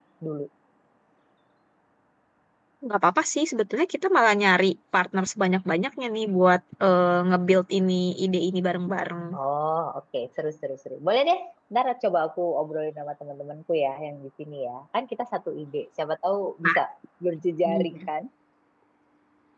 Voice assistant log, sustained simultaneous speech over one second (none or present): none